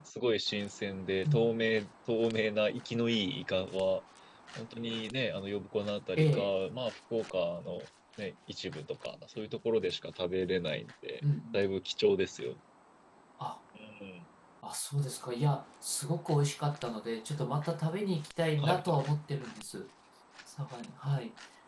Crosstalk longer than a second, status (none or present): none